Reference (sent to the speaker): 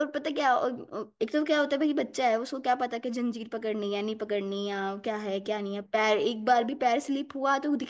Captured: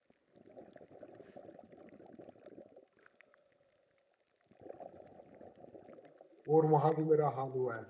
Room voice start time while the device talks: 6.5 s

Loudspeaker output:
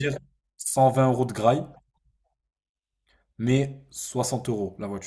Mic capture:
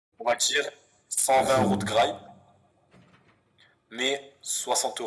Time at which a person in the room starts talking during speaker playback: 1.3 s

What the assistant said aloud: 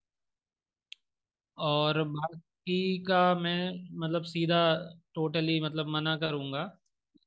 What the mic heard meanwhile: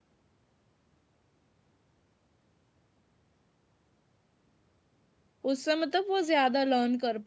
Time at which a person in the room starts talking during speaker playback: 5.5 s

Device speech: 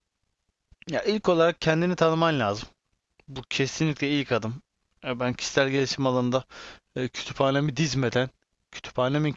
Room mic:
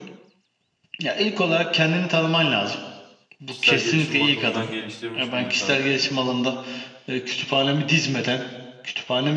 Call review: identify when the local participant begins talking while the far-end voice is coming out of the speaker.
3.5 s

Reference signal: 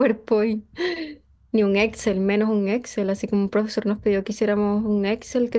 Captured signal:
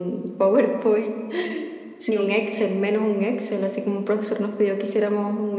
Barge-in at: 2.0 s

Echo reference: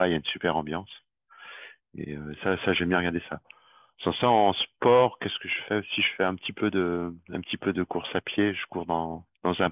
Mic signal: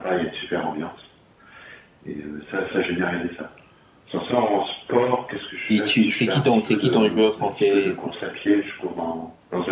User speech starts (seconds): 5.7 s

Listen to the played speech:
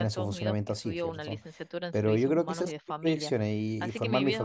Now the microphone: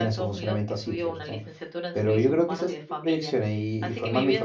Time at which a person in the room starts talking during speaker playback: none

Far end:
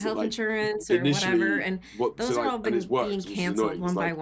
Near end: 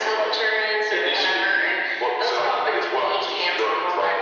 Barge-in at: none

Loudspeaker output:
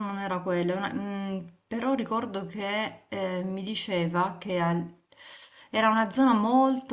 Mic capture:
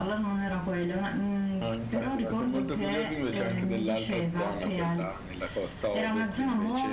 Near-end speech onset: 1.6 s

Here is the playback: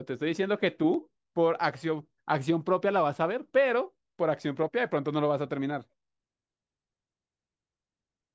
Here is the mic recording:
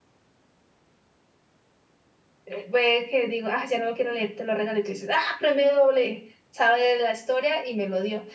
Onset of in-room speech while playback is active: 2.4 s

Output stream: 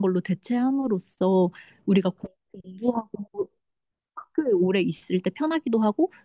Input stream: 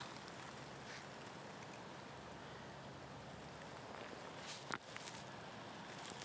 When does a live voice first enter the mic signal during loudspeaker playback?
none

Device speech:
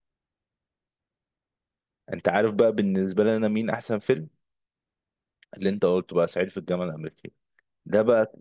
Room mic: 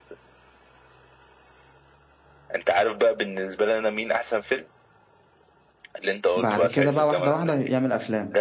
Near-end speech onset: 6.3 s

